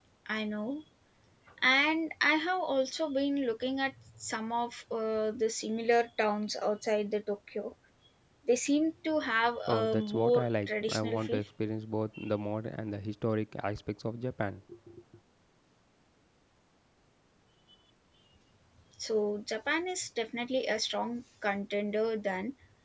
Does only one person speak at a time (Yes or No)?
No